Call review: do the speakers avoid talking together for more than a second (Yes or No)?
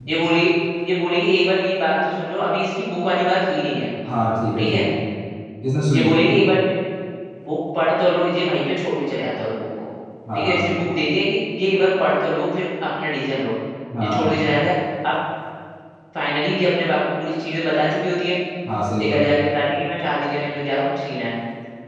Yes